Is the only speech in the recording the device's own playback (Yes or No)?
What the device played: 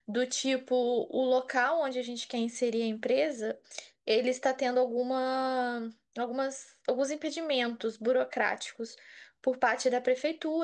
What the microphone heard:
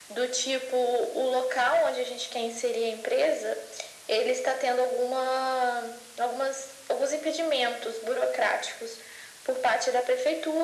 Yes